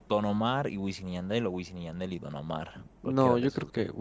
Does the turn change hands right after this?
Yes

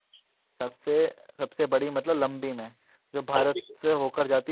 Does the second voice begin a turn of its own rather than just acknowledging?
No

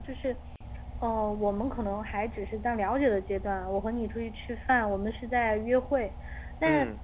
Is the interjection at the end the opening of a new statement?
No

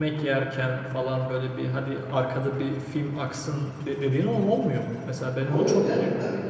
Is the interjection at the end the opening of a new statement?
Yes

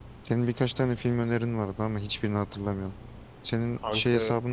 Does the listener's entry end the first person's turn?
No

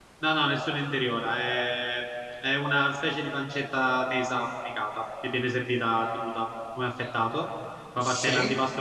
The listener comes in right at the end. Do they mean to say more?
No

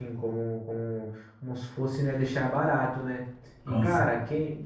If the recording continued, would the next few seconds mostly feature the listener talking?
No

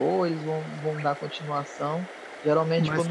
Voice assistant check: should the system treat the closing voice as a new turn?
No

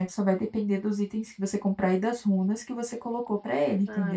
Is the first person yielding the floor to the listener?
Yes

